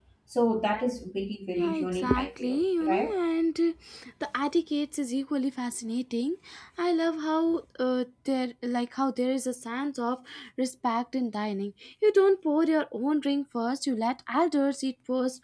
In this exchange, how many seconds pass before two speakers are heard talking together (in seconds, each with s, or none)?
1.5 s